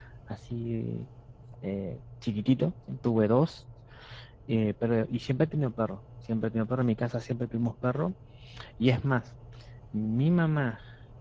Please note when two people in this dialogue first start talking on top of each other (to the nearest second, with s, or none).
none